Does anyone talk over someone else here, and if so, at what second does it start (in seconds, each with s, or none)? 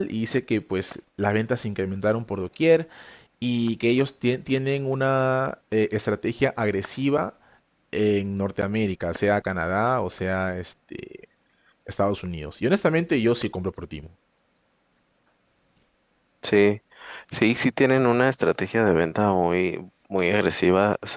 none